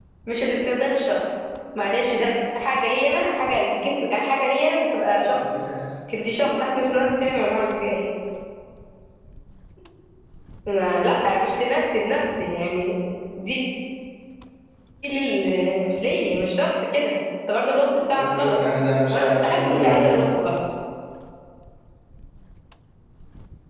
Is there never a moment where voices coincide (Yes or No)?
No